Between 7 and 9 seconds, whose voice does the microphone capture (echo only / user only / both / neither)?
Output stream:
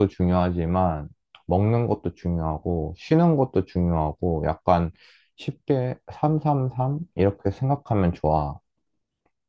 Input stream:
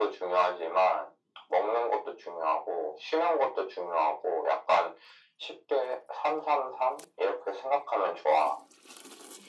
echo only